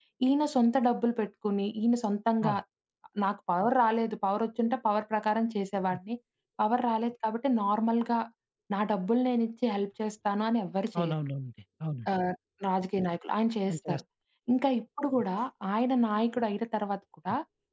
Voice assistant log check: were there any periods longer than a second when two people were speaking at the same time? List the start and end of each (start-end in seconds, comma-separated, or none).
none